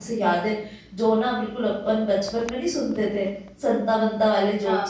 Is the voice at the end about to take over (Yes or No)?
No